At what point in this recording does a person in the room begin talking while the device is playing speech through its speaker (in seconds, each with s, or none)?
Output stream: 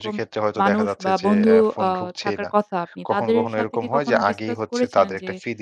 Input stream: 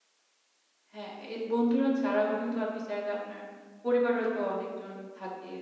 0.9 s